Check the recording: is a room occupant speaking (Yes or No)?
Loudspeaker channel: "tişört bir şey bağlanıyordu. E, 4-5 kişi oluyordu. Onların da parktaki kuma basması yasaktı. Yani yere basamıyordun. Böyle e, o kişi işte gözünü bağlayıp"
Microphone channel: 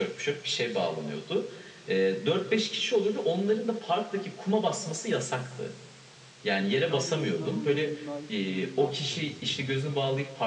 Yes